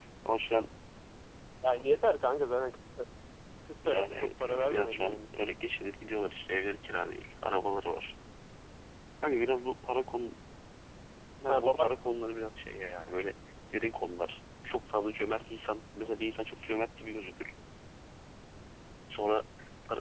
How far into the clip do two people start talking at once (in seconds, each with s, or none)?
3.8 s